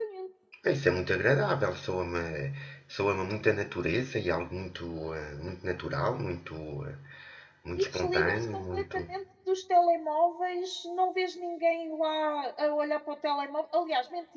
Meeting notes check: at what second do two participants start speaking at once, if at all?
7.8 s

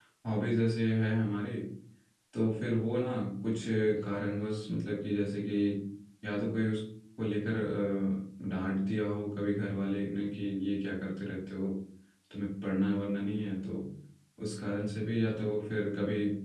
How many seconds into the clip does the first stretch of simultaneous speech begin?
none

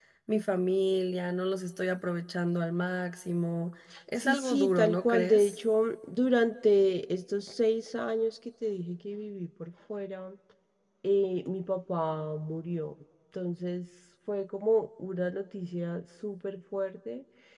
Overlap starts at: 4.2 s

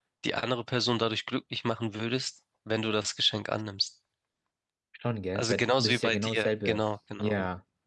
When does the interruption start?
5.4 s

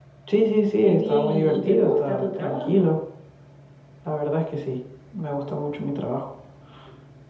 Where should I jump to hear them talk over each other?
0.8 s

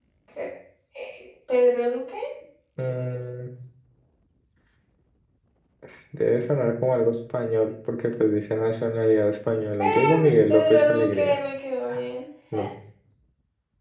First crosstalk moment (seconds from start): 9.8 s

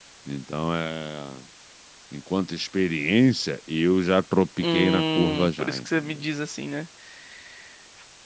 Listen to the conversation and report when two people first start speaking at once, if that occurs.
4.6 s

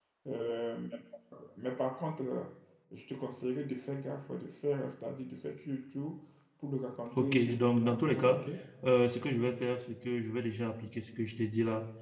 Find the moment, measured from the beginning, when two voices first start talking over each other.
7.1 s

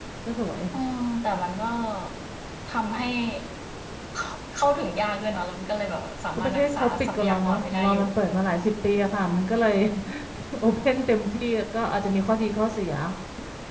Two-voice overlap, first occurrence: 6.4 s

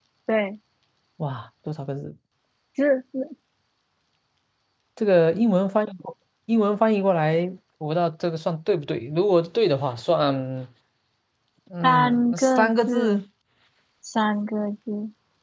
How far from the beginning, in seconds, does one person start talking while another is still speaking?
11.8 s

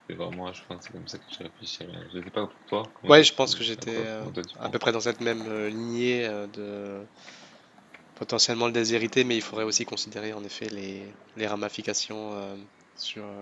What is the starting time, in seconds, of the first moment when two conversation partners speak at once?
3.1 s

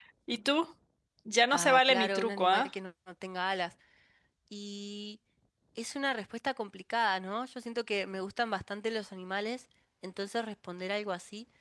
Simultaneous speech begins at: 1.5 s

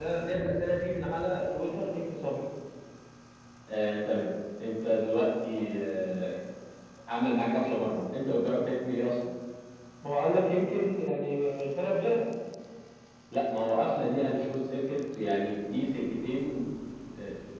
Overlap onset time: none

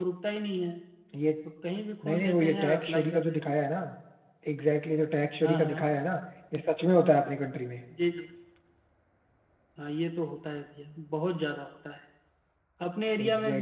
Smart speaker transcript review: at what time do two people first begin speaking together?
2.0 s

